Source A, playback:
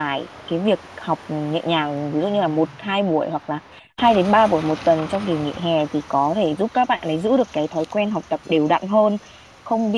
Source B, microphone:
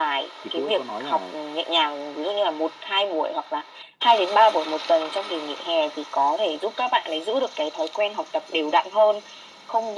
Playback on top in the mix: Yes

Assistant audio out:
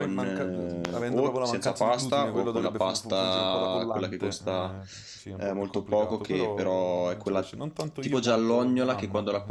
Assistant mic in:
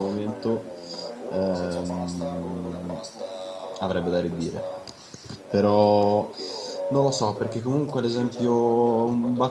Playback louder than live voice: No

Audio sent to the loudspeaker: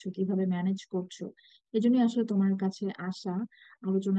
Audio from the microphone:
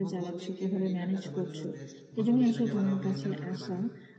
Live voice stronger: No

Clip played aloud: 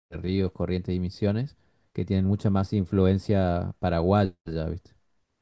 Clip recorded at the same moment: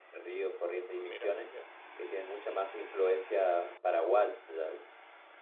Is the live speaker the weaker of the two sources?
Yes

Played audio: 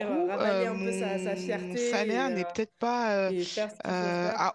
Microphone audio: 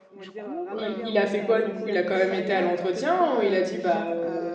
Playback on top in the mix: No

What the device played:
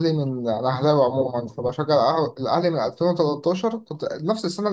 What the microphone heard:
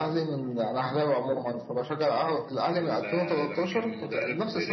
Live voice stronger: No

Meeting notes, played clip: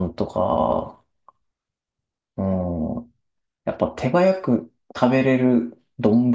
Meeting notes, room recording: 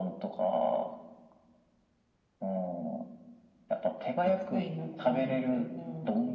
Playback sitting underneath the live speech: No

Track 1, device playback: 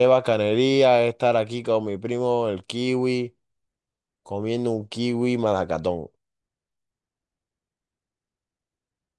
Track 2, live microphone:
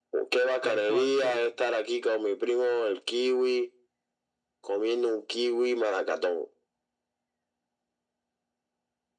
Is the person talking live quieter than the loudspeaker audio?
Yes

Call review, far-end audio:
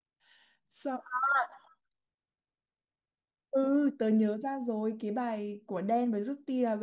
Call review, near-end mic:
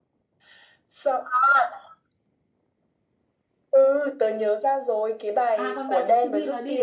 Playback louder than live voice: Yes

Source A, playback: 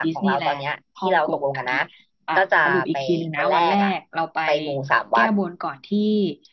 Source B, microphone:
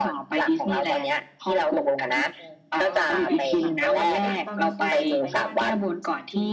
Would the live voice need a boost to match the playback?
Yes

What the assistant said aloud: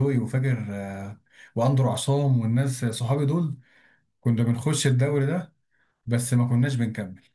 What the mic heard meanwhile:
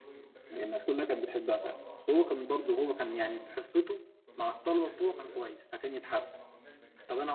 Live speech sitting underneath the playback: No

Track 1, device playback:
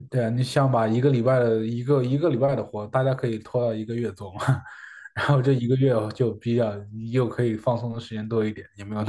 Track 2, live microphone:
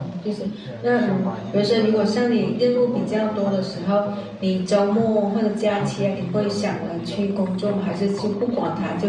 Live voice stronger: Yes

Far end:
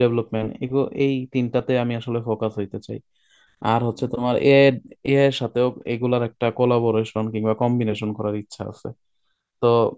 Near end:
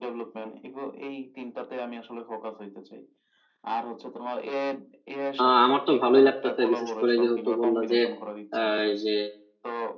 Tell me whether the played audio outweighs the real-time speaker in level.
No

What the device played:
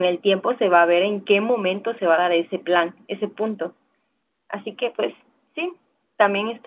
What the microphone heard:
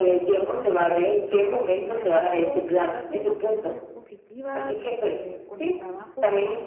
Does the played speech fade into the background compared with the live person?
No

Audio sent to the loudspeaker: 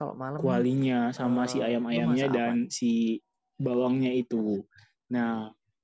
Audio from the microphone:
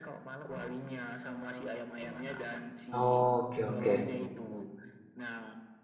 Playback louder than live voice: No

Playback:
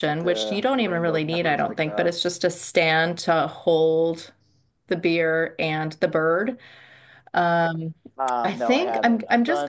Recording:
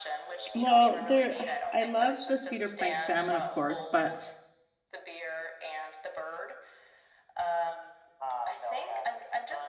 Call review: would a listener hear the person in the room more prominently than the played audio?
Yes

